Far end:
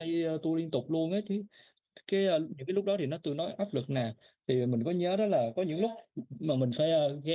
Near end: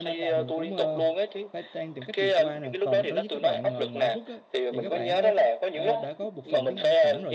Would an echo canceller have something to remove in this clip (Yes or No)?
Yes